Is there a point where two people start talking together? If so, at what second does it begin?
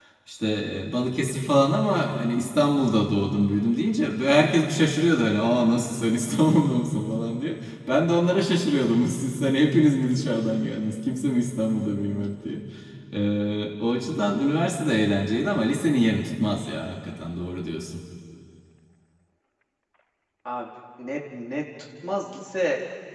none

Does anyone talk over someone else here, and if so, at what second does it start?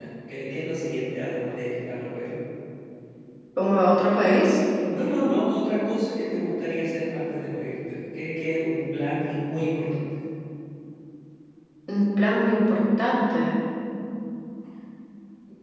none

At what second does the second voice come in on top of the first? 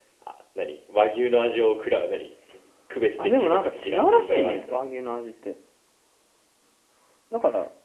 3 s

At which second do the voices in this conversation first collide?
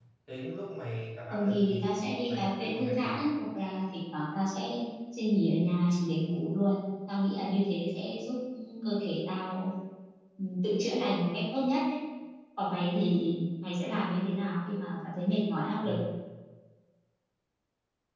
1 s

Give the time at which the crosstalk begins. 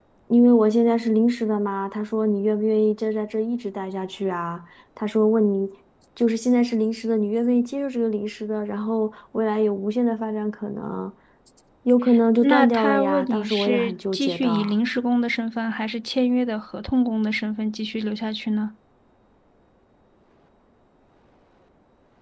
12 s

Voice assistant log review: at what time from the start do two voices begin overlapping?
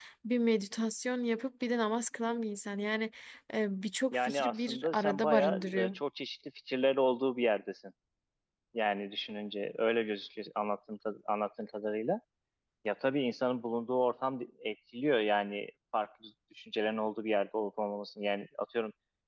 4 s

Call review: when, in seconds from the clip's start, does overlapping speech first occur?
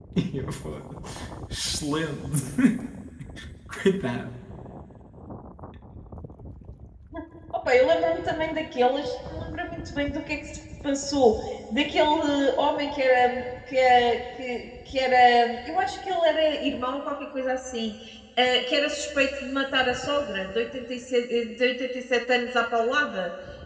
none

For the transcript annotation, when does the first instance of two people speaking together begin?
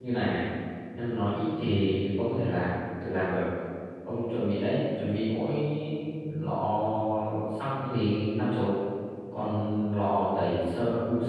none

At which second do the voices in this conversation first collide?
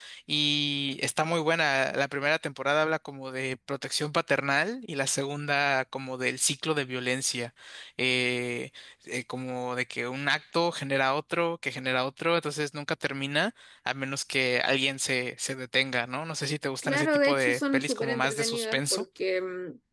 17 s

